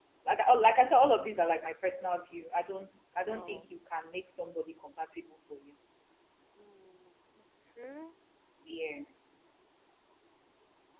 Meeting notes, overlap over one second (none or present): none